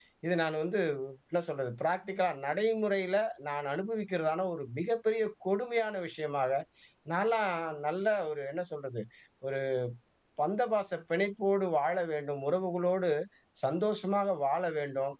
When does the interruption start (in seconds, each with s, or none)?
none